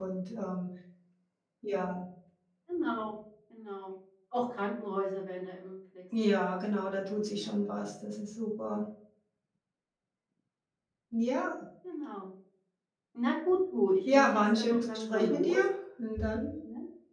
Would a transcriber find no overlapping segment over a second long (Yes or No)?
No